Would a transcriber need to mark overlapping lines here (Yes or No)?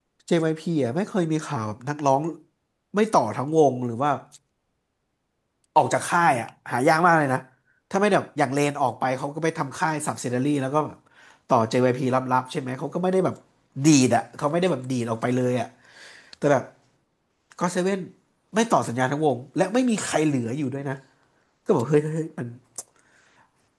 No